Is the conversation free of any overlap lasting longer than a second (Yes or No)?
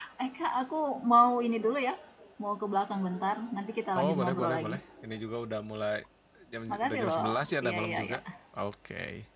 No